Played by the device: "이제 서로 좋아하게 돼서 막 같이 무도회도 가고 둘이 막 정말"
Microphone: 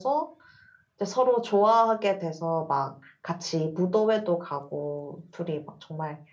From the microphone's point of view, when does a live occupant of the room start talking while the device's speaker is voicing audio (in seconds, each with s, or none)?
none